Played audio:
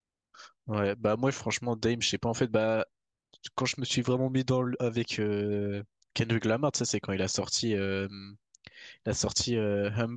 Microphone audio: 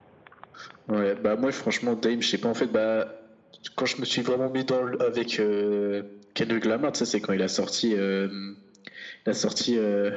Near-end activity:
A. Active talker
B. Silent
B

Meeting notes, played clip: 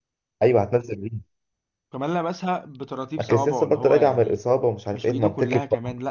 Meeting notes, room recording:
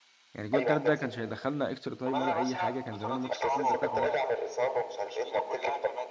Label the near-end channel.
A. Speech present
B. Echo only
A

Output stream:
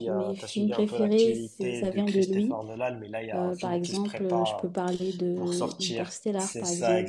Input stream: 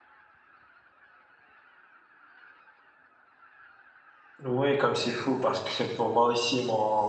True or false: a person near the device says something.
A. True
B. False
A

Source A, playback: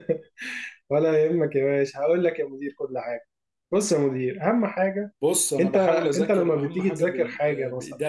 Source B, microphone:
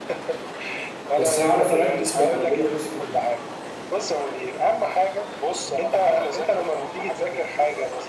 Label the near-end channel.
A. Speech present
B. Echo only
A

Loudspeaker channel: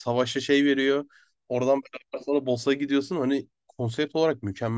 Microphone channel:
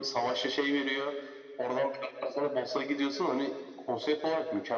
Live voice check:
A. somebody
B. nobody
B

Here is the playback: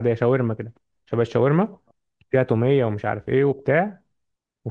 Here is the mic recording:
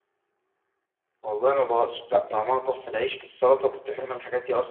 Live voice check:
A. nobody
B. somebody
B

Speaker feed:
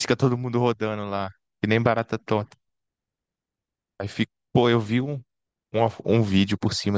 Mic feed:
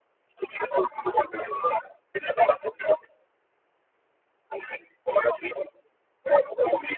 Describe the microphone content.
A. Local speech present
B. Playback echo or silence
B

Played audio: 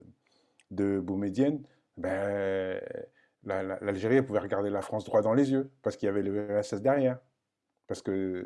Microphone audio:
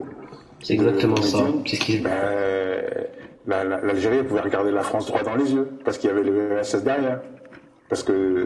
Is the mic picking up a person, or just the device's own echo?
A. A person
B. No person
A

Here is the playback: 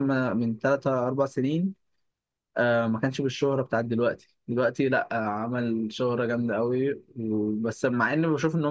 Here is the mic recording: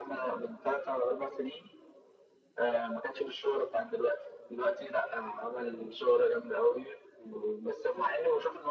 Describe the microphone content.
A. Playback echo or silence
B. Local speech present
A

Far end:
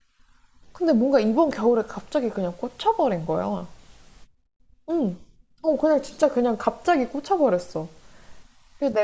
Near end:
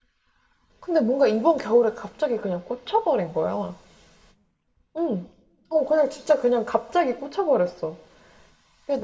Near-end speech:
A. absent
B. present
A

